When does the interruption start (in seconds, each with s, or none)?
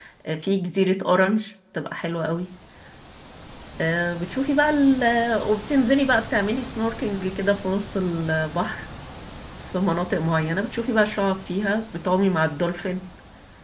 none